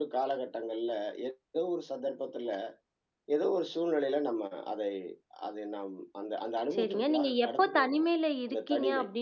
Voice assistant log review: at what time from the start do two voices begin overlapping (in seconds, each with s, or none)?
6.7 s